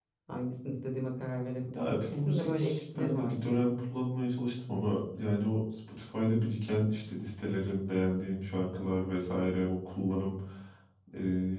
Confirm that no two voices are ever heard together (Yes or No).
No